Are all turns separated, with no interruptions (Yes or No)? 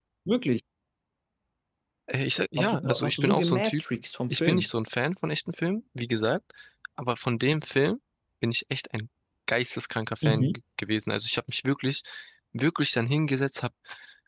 No